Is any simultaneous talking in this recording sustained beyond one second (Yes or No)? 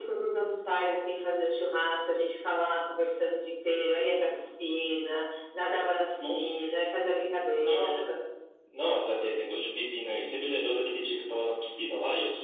No